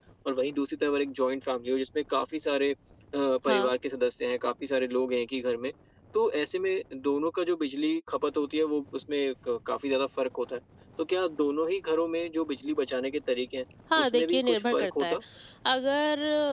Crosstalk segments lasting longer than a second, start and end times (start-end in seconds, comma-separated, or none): 14.0-15.2